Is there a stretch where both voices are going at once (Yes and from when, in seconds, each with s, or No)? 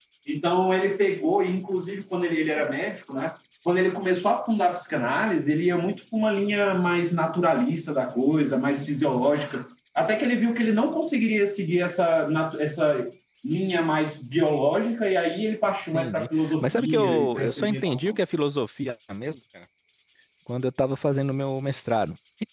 Yes, from 15.9 s